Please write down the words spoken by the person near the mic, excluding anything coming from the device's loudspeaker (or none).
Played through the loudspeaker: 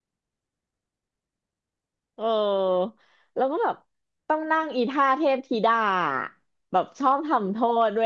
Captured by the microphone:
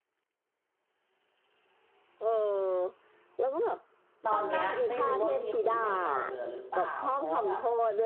ตอนเนี้ยไม่รู้ว่ามีครูเก่าๆเหลือหรือเปล่าเพราะว่าแบบ